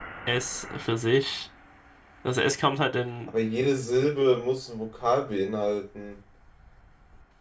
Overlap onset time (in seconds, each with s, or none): none